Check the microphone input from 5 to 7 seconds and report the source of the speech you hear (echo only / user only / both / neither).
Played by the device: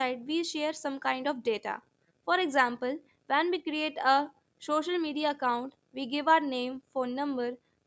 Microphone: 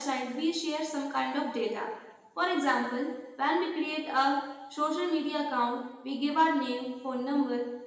echo only